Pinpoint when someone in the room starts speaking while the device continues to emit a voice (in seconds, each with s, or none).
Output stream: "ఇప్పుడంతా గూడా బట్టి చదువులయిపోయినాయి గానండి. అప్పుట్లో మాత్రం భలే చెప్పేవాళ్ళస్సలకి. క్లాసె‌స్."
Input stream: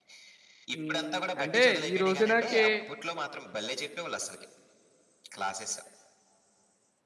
0.8 s